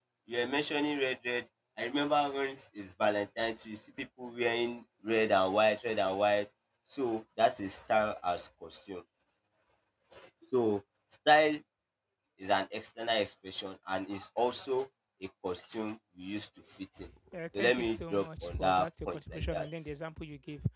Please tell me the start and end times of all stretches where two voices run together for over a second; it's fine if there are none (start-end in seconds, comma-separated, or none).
17.6-19.7